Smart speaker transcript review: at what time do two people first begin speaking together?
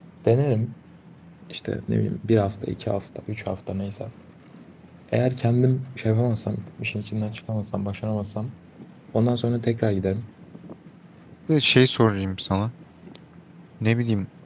none

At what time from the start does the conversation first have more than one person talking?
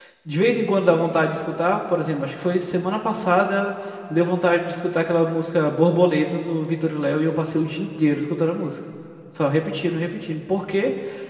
none

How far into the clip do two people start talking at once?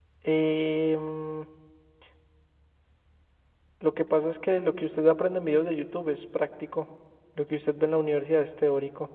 none

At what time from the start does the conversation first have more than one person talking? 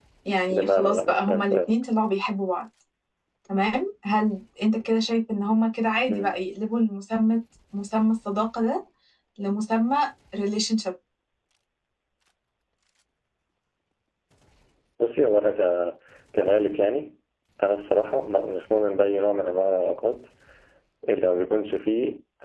0.5 s

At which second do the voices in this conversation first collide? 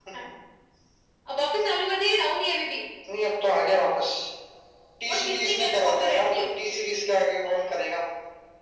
5.1 s

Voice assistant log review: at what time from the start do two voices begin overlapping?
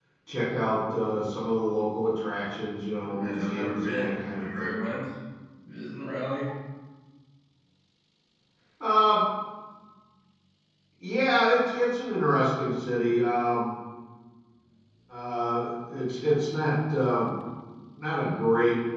3.0 s

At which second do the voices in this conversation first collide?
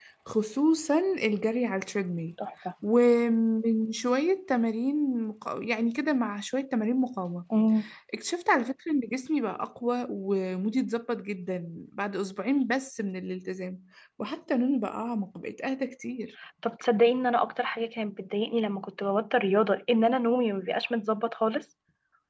none

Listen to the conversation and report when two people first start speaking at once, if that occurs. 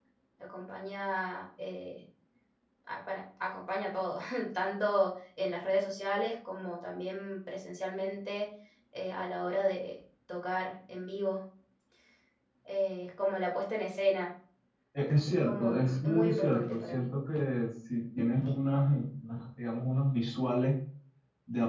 15.4 s

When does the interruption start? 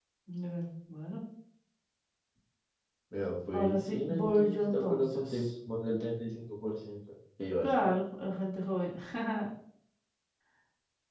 3.5 s

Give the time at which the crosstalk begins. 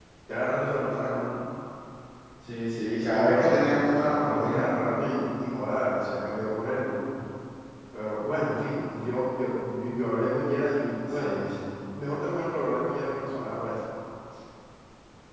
2.8 s

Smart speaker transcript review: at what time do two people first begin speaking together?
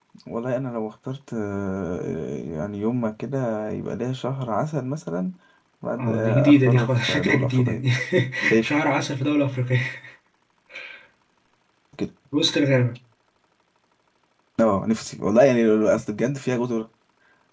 6.0 s

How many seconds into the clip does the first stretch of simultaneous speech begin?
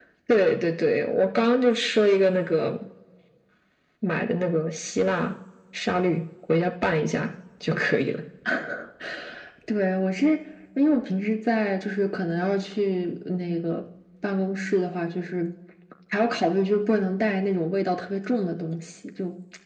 none

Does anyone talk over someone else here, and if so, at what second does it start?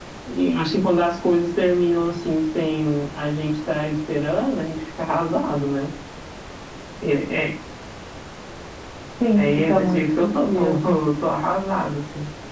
9.4 s

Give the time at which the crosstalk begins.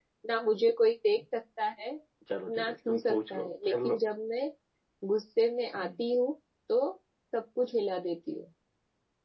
2.6 s

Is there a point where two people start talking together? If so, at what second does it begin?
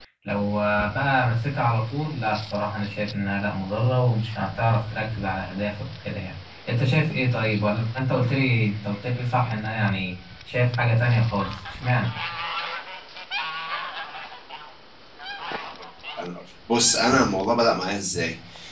none

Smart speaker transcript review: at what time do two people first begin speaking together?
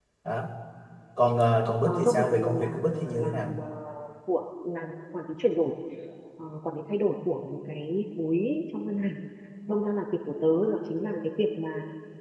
1.9 s

